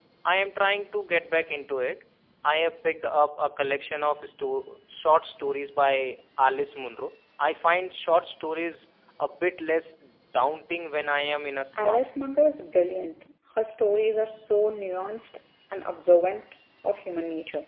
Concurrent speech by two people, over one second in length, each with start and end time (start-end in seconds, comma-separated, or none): none